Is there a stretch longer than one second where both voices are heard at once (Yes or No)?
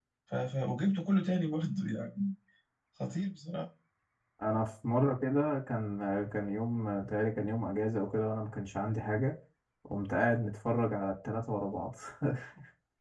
No